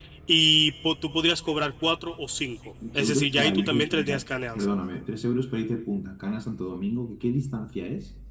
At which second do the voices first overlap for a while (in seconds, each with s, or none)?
2.8 s